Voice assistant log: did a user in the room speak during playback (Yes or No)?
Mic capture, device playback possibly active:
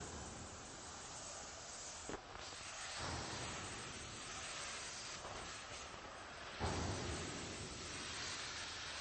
No